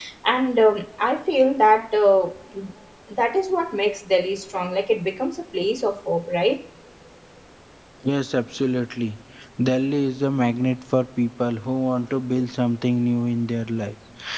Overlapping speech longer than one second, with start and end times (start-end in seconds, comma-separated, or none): none